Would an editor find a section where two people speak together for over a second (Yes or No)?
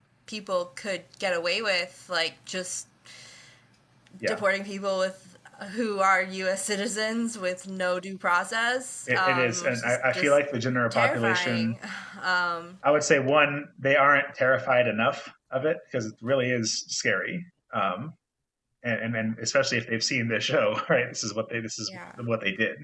Yes